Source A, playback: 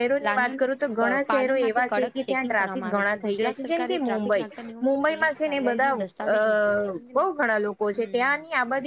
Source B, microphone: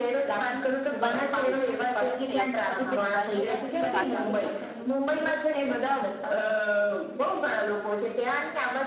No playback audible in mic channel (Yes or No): No